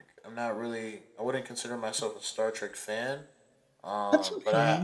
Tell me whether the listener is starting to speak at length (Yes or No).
No